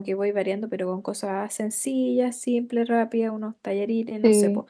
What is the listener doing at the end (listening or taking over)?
taking over